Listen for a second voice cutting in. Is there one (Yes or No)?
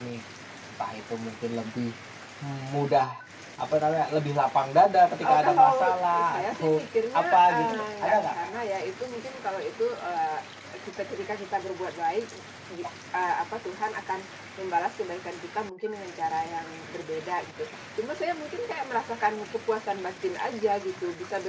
Yes